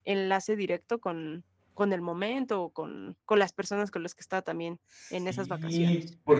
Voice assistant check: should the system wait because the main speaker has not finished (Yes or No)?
No